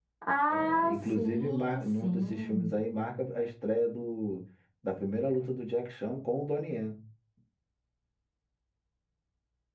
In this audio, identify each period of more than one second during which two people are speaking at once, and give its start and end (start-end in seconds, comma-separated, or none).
0.5-2.7